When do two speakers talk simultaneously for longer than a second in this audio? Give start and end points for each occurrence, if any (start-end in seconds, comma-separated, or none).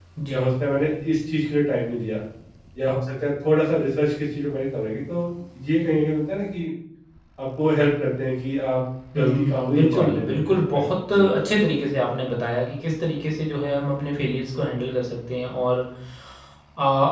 9.1-11.4